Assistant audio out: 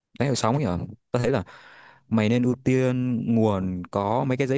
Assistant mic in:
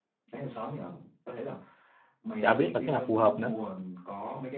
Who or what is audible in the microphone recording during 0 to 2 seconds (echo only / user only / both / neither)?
echo only